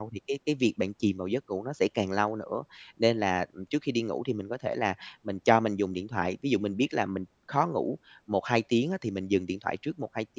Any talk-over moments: No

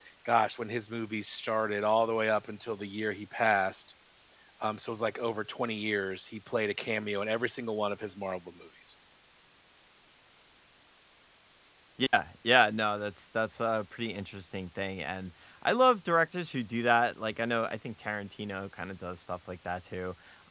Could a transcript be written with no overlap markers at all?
Yes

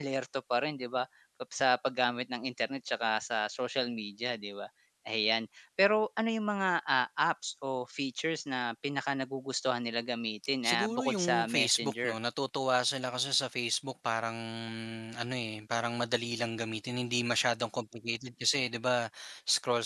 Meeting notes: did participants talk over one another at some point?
Yes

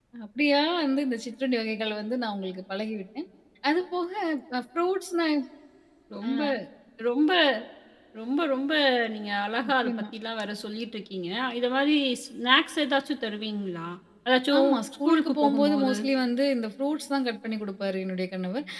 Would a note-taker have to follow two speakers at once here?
Yes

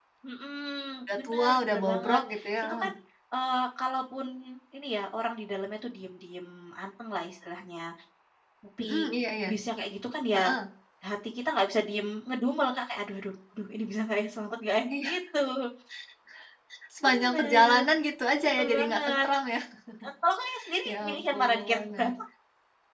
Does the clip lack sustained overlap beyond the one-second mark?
No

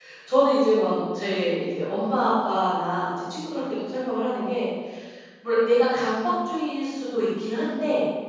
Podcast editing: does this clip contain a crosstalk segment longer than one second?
No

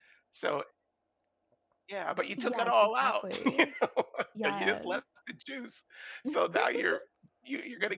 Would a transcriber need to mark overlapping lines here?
Yes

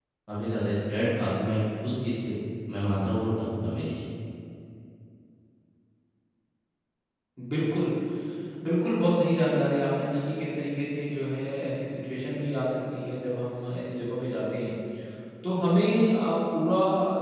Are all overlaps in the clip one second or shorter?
Yes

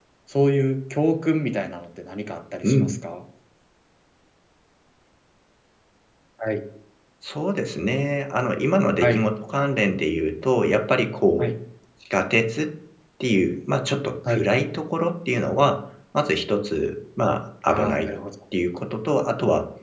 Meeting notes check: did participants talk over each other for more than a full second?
No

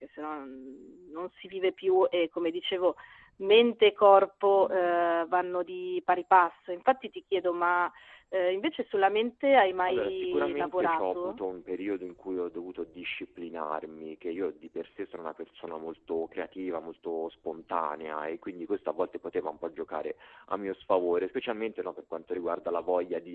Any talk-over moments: Yes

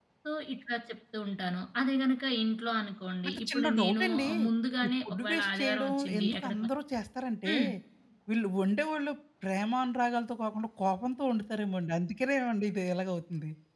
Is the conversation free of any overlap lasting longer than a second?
No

